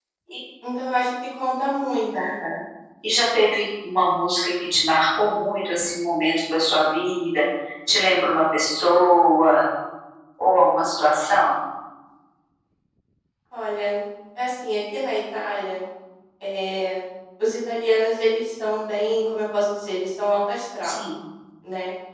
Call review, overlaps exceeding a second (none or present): none